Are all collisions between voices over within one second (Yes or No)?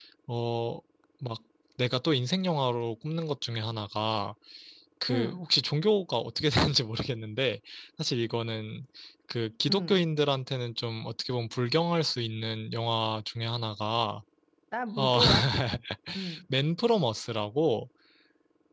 Yes